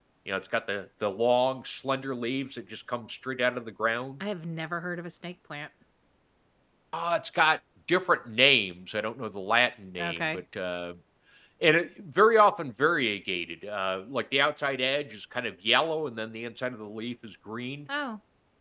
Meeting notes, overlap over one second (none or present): none